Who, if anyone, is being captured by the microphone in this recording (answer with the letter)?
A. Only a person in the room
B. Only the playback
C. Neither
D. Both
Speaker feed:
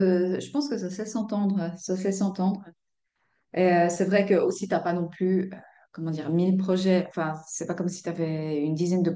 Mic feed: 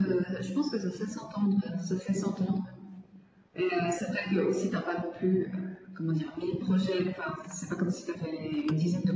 B